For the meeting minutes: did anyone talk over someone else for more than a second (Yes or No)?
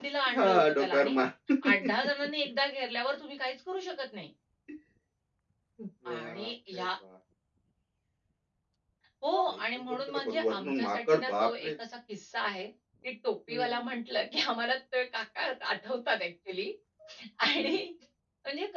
Yes